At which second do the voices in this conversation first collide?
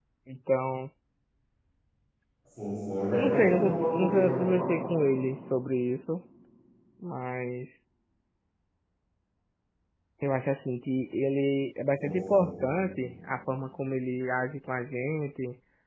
3 s

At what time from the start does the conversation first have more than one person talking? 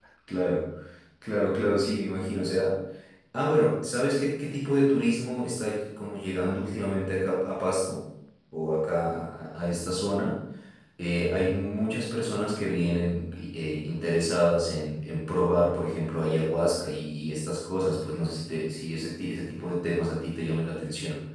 none

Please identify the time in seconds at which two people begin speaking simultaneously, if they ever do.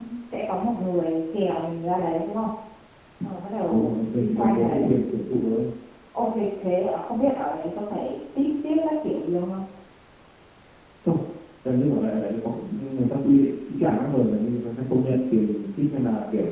4 s

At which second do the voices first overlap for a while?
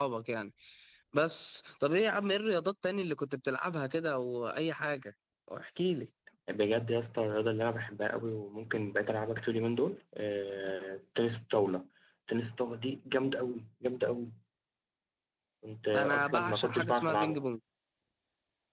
16 s

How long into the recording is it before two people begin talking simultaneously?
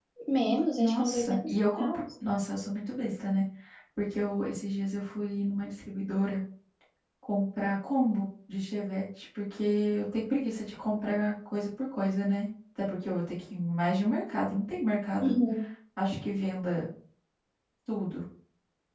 1 s

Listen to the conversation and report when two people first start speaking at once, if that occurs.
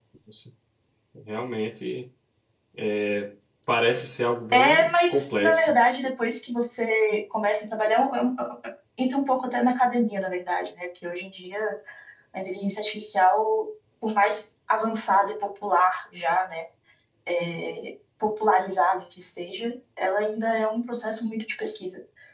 5 s

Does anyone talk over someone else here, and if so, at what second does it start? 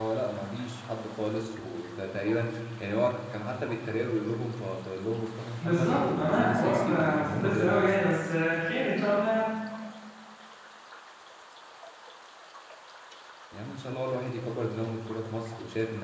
6 s

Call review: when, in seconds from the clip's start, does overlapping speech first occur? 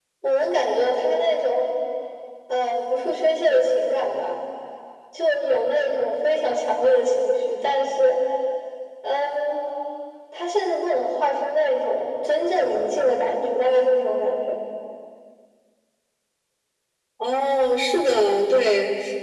none

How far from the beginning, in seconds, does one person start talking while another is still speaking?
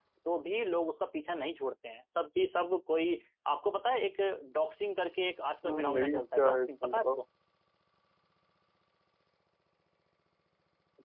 6 s

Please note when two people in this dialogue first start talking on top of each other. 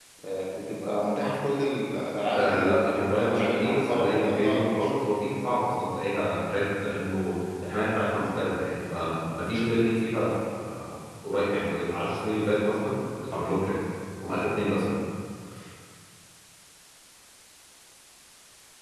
2 s

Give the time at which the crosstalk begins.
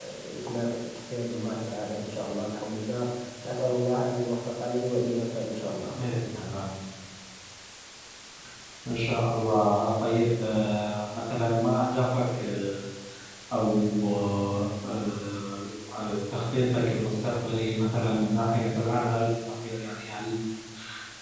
none

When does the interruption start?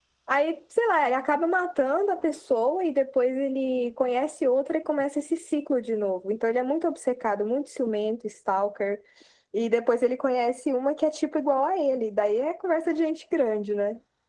none

